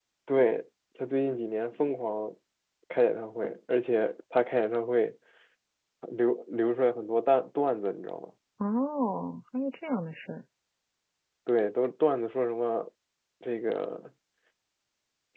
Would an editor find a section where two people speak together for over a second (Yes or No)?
No